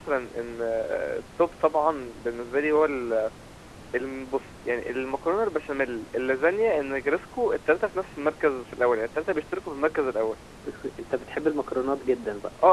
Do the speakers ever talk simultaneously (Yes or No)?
No